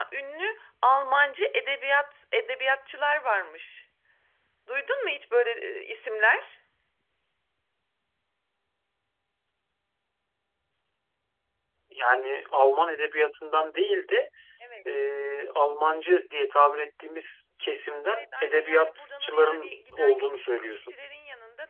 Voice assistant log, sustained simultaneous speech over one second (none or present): present